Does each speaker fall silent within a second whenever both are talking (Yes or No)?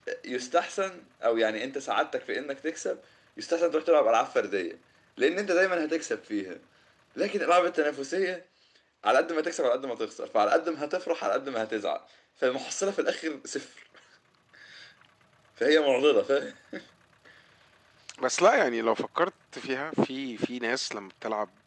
Yes